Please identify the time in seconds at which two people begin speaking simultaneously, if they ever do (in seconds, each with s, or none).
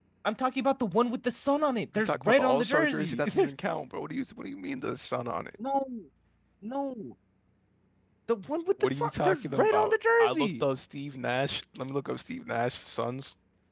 1.9 s